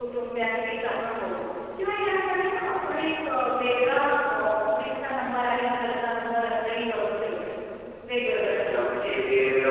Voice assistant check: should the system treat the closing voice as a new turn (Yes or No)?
Yes